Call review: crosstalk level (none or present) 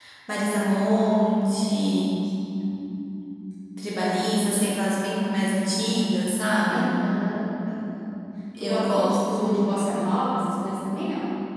present